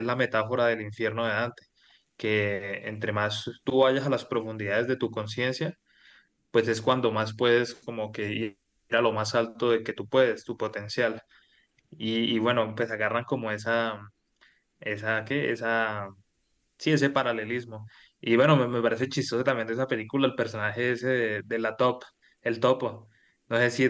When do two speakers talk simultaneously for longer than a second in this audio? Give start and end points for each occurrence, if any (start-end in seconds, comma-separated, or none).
none